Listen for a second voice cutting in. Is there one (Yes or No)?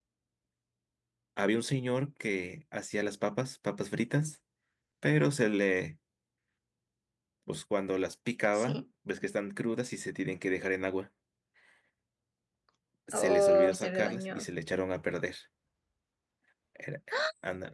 Yes